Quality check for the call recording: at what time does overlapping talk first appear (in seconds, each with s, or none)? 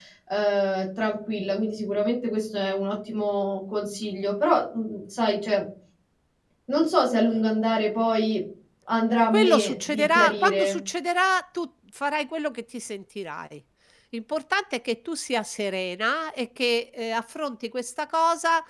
9.3 s